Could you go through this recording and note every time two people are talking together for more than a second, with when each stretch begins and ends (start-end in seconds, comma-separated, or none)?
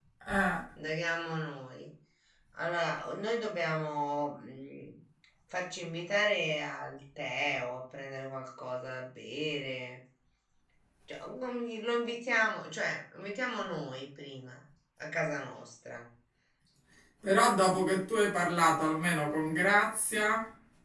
none